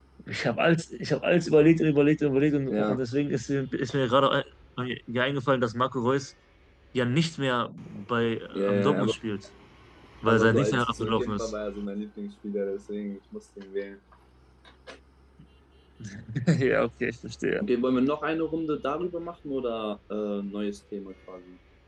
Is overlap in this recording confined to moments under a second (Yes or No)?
No